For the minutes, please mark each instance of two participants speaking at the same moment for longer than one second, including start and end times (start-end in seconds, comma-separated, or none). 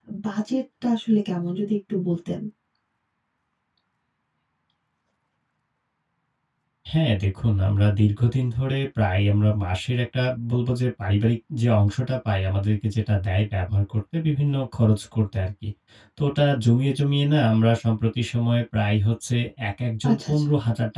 none